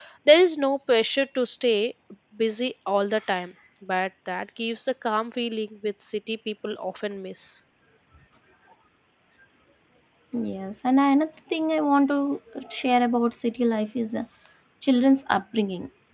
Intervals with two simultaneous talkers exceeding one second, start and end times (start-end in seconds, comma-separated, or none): none